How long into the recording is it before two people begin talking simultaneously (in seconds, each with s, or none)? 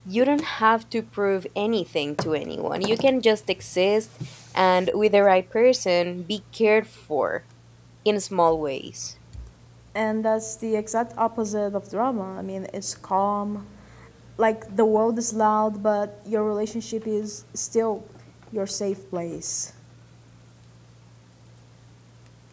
none